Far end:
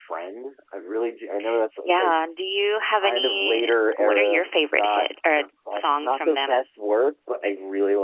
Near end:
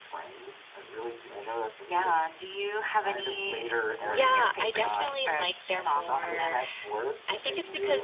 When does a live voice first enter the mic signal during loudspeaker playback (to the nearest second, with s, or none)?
4 s